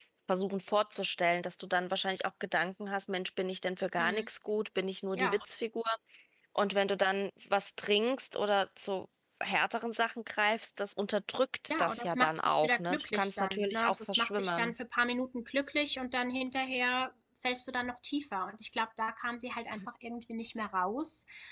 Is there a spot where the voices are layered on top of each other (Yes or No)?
Yes